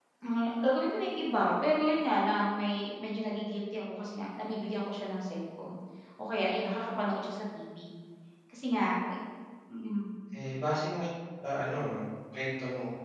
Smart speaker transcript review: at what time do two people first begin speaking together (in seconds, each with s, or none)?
none